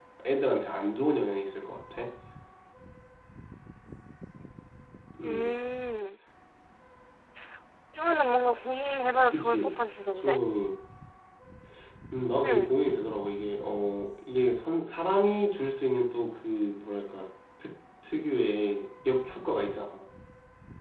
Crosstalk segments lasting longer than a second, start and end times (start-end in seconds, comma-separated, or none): none